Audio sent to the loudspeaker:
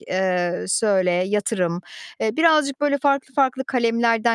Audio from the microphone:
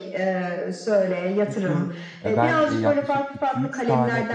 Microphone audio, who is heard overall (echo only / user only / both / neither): both